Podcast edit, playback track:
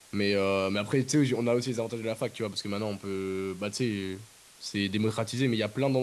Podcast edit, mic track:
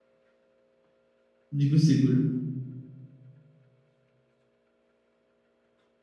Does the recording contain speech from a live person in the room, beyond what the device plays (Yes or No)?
Yes